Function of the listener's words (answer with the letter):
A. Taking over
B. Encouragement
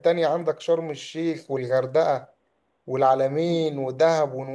B